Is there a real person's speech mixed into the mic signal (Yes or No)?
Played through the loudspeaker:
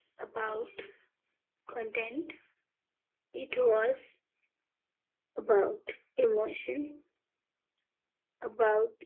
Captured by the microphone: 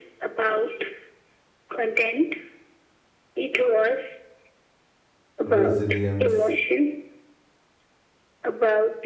Yes